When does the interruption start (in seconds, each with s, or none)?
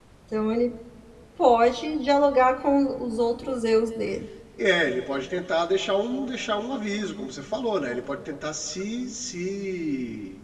none